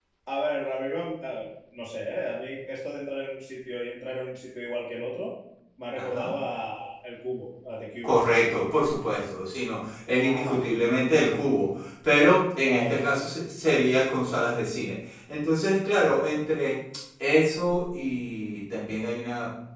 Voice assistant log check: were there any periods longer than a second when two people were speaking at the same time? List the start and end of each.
none

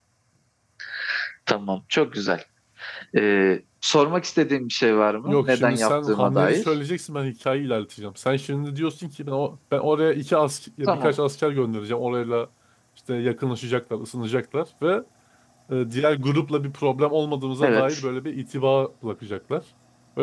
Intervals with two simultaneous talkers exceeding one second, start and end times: 5.2-6.7

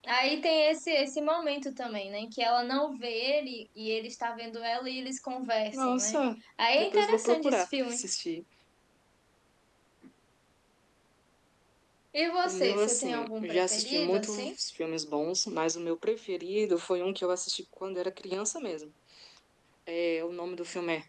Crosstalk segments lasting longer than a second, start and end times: 6.8-8.0, 12.4-14.5

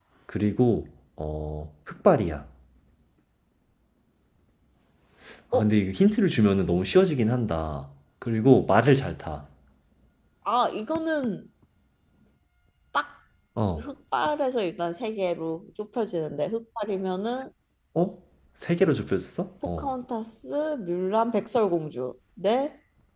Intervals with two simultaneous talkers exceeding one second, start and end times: none

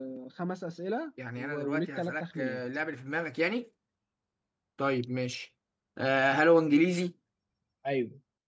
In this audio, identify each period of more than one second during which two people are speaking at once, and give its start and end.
1.4-2.6

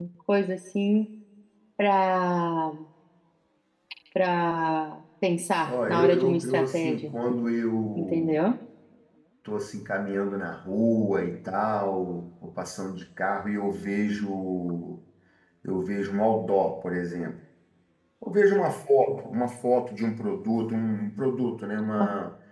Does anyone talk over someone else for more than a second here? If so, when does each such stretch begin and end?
5.6-7.1

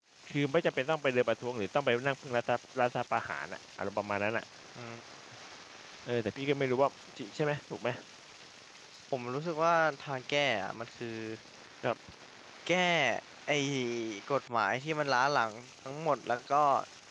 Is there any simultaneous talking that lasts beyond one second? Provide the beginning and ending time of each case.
none

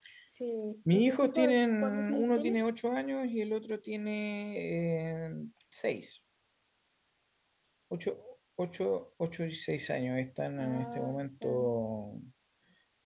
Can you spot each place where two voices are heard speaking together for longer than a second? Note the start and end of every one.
0.9-2.6, 10.6-11.8

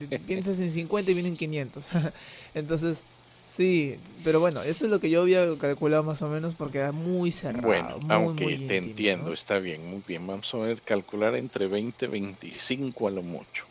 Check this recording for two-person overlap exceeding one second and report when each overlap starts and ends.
7.5-9.3

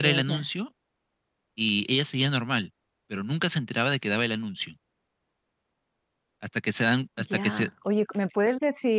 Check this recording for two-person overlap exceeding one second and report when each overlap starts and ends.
none

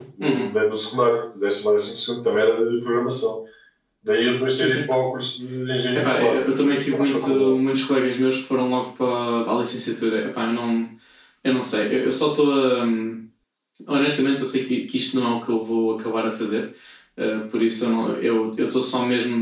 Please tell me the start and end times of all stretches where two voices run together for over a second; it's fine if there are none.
5.9-7.6

